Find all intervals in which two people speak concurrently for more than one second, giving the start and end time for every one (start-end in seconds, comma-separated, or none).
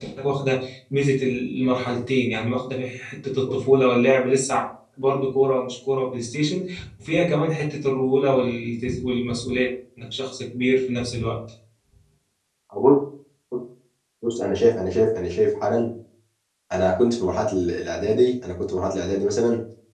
none